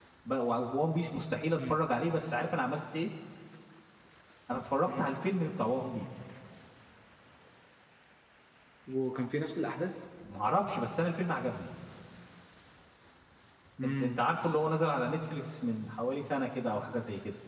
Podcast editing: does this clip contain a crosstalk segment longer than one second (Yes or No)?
No